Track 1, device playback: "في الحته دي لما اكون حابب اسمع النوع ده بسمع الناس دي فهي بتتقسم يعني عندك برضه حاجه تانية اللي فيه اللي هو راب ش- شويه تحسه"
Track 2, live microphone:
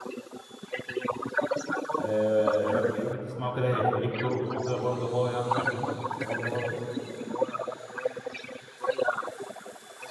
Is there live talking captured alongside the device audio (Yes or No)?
Yes